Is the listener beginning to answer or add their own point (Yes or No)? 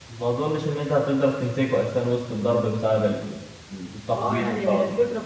Yes